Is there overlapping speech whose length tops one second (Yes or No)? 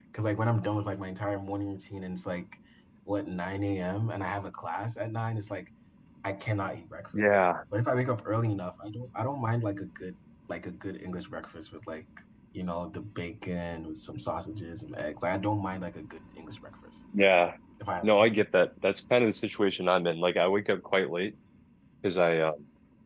No